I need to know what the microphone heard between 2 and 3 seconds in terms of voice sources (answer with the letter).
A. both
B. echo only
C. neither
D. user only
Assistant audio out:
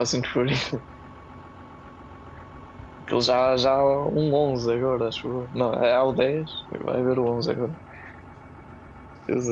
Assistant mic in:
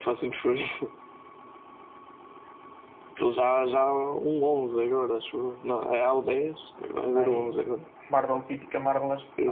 C